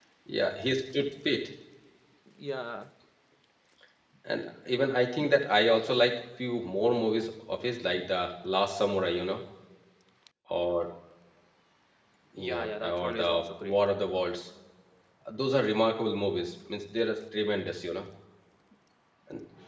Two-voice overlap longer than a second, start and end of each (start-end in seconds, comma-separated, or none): 12.4-13.8